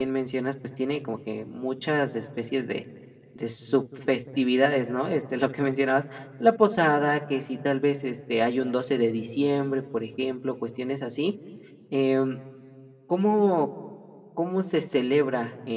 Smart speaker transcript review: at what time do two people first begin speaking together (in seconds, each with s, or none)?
none